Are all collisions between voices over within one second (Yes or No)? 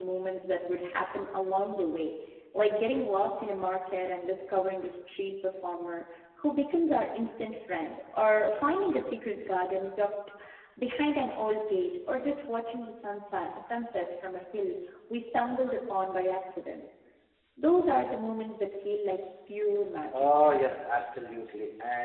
Yes